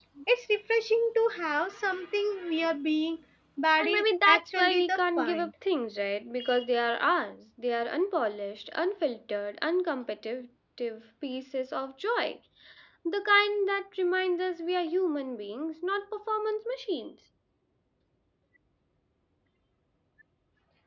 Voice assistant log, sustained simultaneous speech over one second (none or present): present